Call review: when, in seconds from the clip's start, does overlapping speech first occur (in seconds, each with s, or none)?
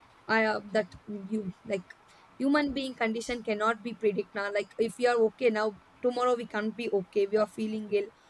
none